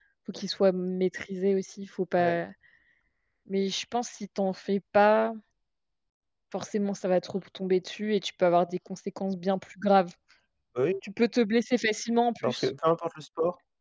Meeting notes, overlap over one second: none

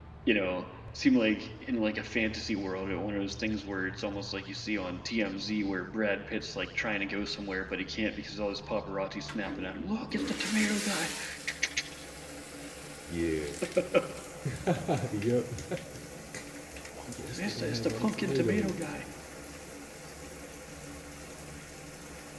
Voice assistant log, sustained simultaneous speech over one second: present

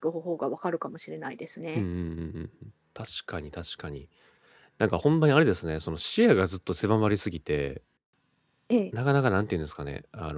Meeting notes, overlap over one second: none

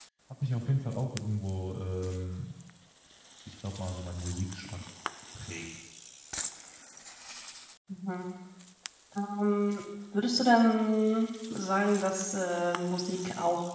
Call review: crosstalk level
none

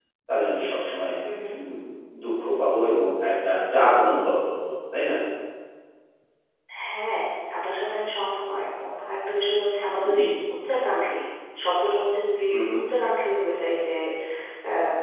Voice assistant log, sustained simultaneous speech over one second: none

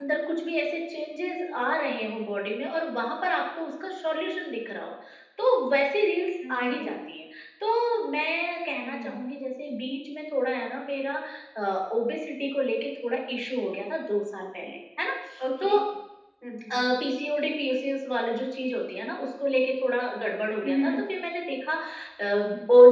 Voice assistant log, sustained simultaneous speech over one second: none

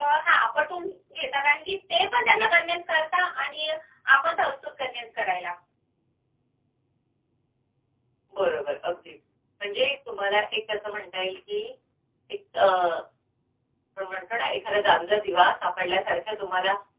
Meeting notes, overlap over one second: none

